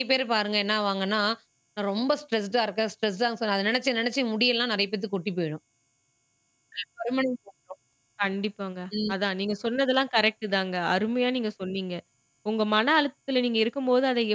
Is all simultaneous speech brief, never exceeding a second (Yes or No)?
Yes